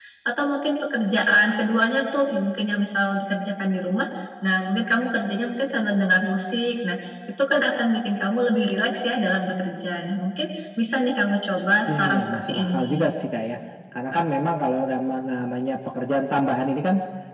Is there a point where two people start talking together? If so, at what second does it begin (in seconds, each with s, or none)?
11.9 s